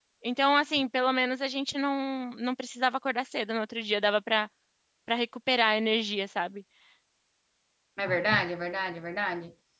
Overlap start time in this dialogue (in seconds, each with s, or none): none